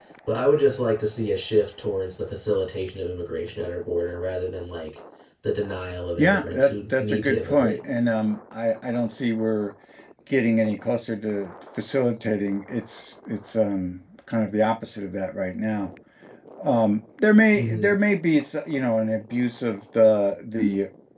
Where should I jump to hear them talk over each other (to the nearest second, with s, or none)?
6 s